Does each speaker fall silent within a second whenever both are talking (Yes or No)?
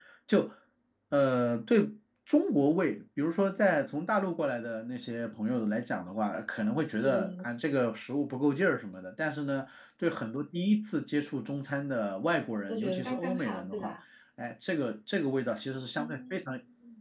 No